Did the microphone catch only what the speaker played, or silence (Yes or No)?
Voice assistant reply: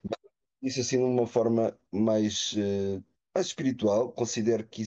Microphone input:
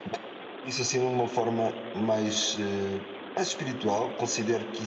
Yes